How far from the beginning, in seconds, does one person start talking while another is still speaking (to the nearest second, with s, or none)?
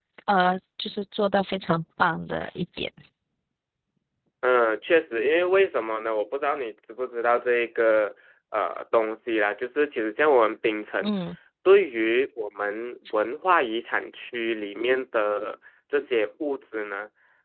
none